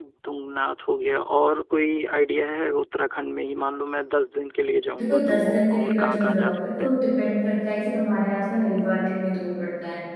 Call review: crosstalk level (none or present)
present